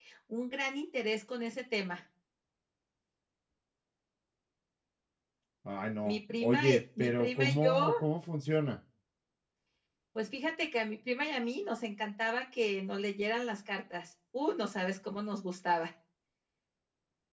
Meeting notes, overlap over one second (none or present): present